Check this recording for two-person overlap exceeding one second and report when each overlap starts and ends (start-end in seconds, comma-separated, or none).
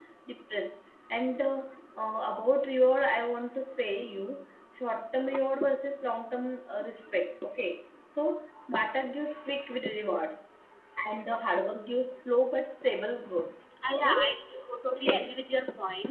none